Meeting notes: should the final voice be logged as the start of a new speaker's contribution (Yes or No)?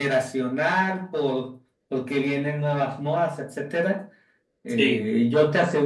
No